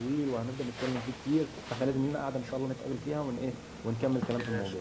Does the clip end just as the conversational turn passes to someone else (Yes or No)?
Yes